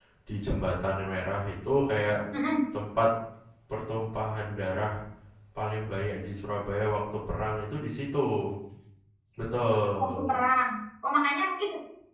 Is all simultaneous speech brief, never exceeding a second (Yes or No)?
Yes